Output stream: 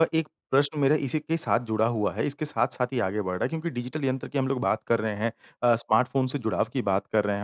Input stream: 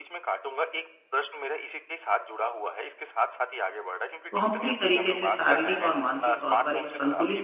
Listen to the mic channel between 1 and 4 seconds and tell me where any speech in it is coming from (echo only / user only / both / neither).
echo only